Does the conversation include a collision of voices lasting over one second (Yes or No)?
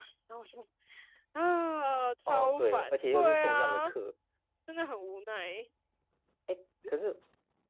Yes